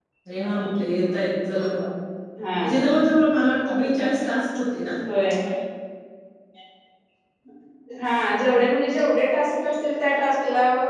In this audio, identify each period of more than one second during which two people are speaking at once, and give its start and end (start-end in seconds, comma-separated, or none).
none